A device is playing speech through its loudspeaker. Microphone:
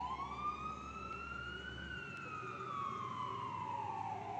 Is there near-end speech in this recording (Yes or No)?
No